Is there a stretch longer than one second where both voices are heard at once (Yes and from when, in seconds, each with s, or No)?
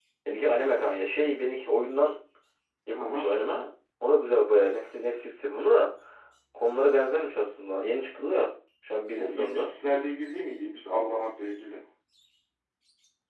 No